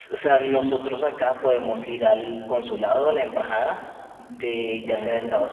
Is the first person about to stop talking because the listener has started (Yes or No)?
No